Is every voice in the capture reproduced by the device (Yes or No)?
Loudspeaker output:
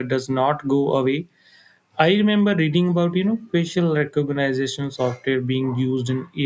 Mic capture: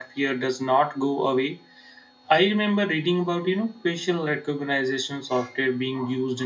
Yes